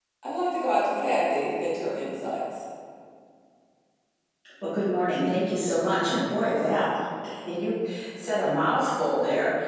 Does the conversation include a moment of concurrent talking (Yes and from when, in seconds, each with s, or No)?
No